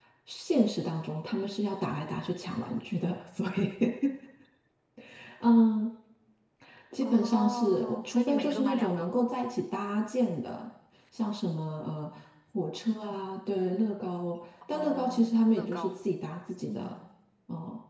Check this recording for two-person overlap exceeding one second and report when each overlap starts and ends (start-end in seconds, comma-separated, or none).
7.0-9.1, 14.7-15.9